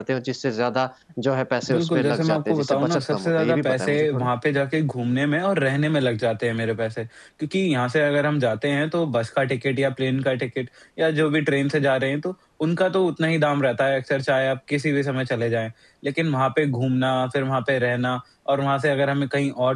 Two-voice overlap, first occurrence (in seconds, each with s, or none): 1.6 s